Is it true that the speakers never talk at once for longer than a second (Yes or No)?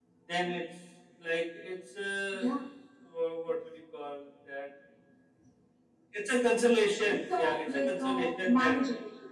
No